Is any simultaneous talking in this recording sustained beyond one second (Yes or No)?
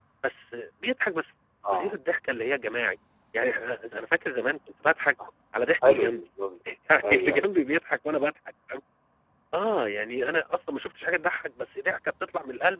No